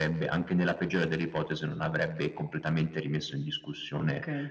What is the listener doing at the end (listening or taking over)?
taking over